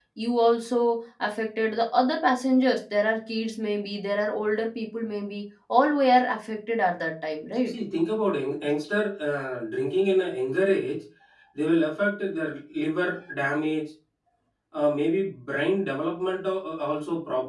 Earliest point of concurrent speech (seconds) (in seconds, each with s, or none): none